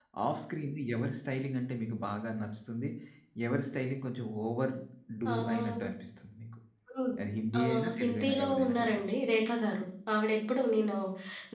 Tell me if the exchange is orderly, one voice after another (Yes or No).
No